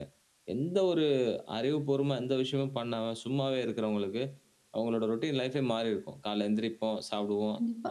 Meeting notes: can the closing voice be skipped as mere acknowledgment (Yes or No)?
Yes